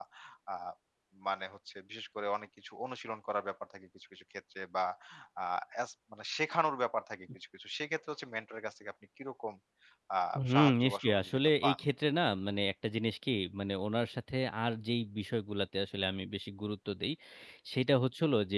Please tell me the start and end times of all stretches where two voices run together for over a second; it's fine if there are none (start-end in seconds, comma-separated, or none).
10.5-11.8